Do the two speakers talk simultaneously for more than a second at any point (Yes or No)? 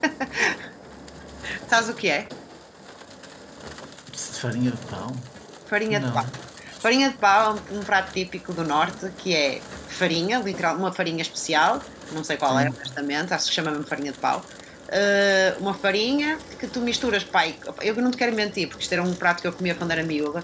No